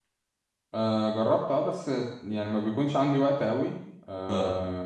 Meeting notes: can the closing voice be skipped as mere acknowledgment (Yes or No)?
Yes